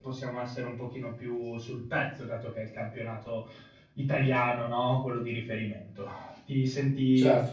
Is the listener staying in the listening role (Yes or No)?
Yes